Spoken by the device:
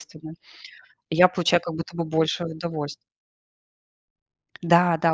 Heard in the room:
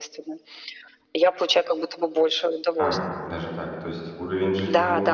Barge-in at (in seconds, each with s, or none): 2.7 s